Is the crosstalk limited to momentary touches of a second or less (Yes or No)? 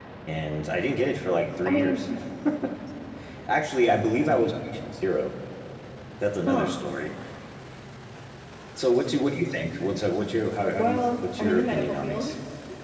No